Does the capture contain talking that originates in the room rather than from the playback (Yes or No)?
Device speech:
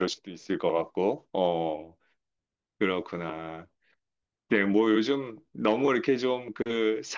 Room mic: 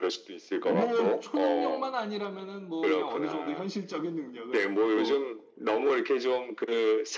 Yes